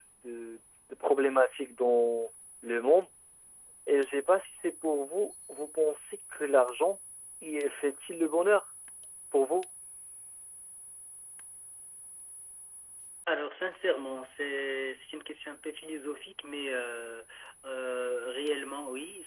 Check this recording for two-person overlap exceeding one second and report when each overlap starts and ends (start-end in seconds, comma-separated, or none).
none